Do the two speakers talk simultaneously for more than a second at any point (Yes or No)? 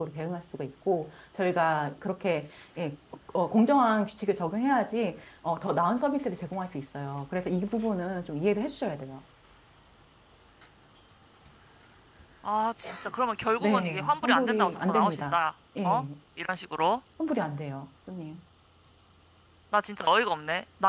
Yes